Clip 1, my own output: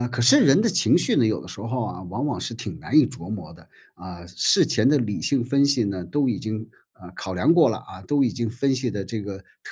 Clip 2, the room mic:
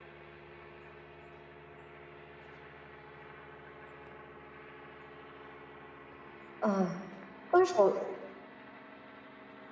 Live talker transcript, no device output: 嗯，分手

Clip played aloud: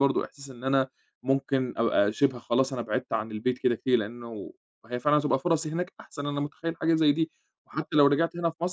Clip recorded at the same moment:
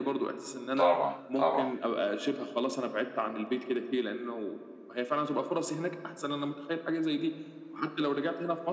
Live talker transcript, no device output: طبعًا، طبعًا،

